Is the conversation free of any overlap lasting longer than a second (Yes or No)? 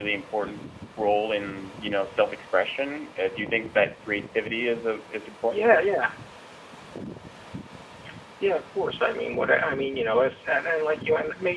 Yes